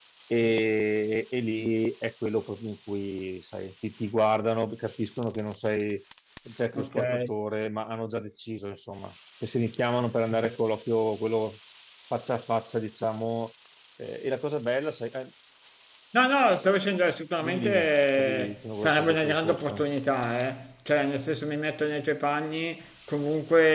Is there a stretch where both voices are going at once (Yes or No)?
Yes